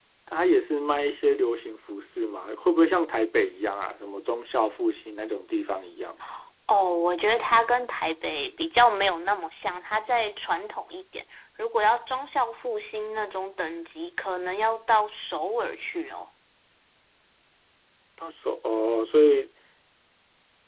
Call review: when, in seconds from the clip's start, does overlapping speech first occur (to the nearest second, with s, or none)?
none